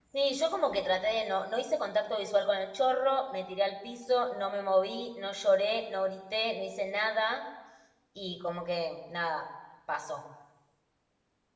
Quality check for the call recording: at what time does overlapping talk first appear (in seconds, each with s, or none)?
none